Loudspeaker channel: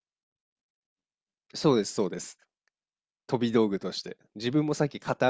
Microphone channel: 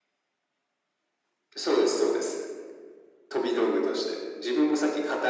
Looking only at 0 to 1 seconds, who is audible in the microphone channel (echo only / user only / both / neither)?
neither